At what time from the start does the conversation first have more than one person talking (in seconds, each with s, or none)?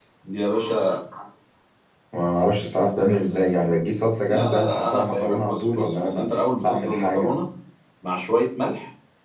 4.3 s